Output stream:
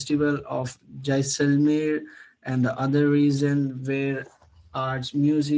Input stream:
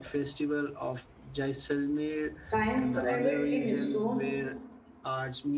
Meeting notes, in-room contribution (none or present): present